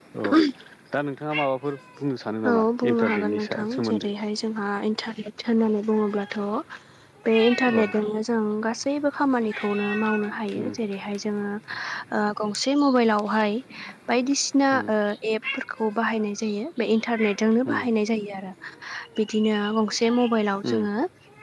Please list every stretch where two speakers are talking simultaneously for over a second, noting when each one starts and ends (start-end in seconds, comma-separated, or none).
2.5-4.1